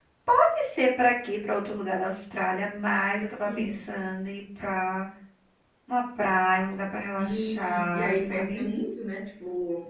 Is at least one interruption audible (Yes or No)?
Yes